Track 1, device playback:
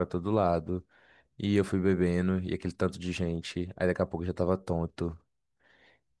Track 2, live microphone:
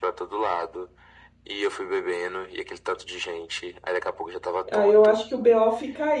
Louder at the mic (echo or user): user